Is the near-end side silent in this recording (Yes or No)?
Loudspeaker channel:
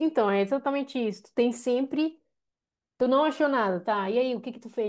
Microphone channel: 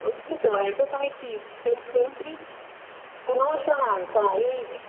Yes